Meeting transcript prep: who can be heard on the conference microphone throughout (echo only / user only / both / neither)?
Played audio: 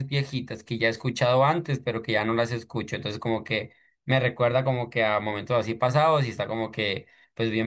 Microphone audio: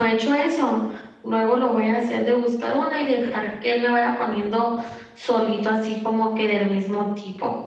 user only